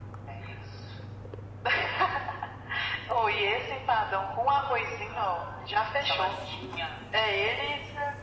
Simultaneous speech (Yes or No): Yes